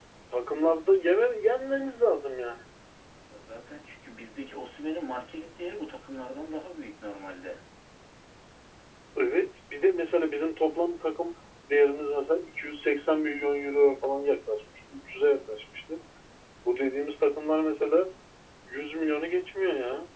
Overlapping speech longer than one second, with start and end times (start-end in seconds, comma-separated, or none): none